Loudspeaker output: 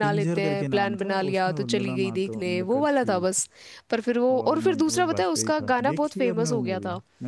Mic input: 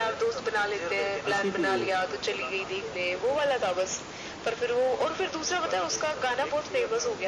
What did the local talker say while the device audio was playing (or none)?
ऐसी थी वो